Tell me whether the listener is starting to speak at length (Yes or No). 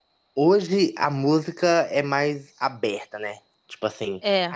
No